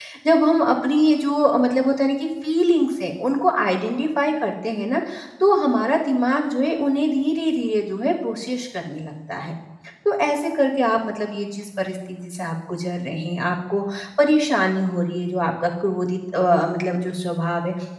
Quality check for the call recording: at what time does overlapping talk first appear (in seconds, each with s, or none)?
none